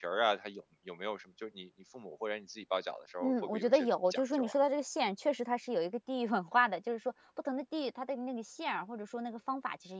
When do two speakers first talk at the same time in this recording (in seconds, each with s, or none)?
3.2 s